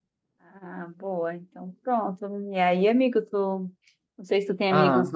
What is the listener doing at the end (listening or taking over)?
listening